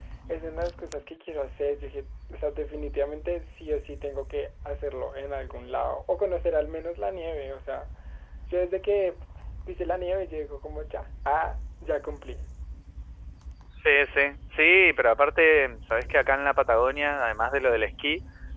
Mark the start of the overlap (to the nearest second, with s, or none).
none